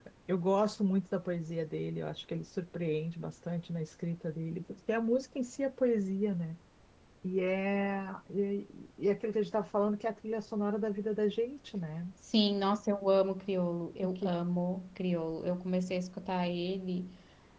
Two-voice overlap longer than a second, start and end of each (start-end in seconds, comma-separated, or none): none